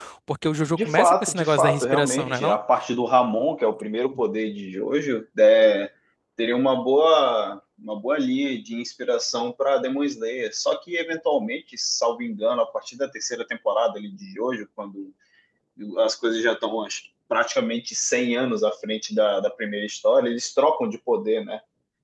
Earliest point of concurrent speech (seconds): 0.7 s

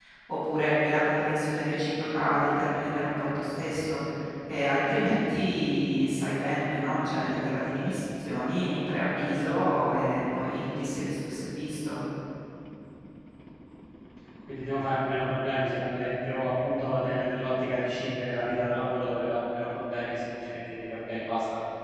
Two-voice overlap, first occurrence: none

